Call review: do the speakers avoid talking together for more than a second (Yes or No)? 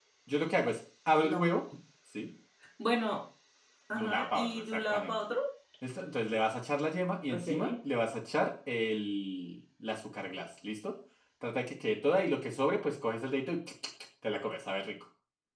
No